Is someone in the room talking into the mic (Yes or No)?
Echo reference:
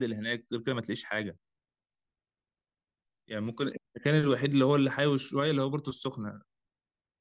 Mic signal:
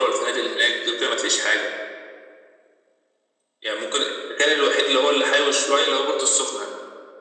No